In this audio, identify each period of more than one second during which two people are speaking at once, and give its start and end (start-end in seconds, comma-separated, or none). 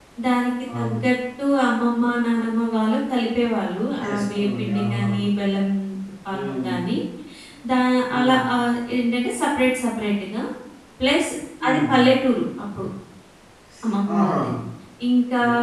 4.0-5.2